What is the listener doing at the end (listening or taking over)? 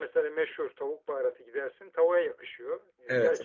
listening